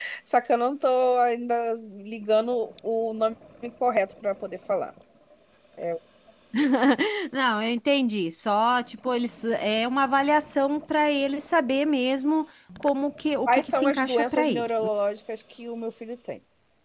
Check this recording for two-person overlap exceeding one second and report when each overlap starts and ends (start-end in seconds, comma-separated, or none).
13.5-14.7